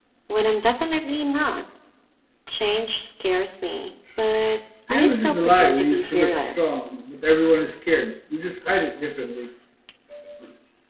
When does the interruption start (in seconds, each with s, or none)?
4.9 s